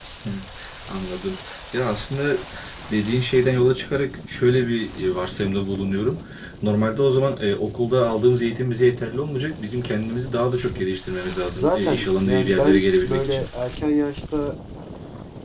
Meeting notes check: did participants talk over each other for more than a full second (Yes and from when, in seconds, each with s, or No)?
Yes, from 11.5 s